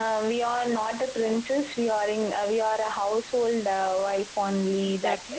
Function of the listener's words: taking over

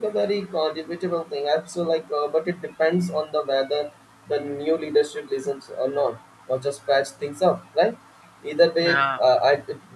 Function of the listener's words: listening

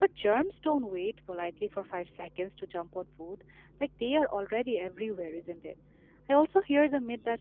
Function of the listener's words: listening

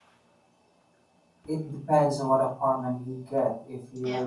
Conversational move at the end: listening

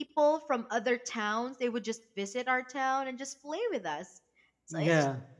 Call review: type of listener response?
listening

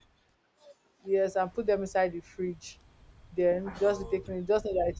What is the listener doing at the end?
listening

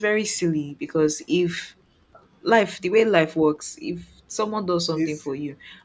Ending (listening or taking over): listening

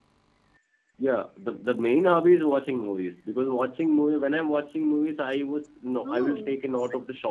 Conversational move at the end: listening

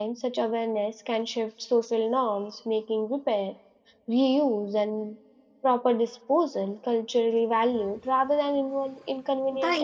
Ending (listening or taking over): taking over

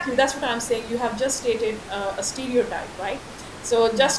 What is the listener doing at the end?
listening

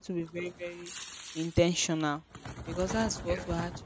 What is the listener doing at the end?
listening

